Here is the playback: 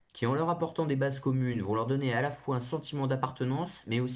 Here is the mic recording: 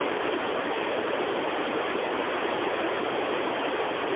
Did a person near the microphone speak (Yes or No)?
No